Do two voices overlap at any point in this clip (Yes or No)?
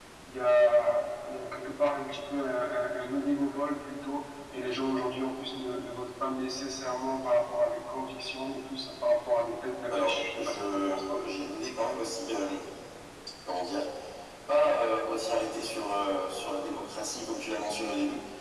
Yes